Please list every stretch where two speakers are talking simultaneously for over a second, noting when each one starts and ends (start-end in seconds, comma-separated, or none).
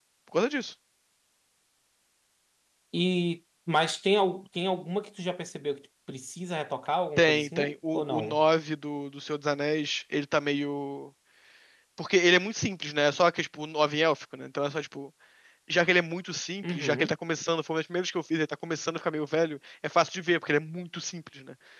7.2-8.4